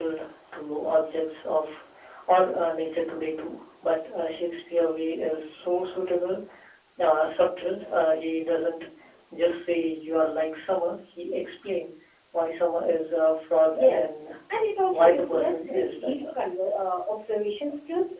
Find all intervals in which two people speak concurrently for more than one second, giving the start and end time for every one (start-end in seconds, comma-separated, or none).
14.9-16.1